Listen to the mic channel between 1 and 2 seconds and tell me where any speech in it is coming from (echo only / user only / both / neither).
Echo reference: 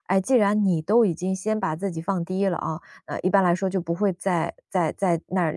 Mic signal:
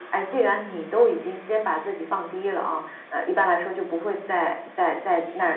echo only